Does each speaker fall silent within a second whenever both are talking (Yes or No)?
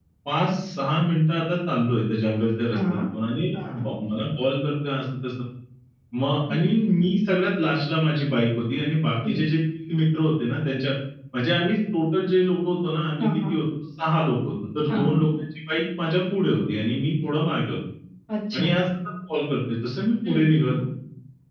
Yes